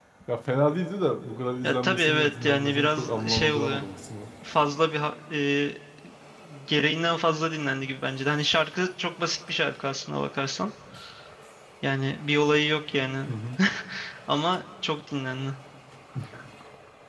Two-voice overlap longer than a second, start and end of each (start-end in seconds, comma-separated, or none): 1.6-3.8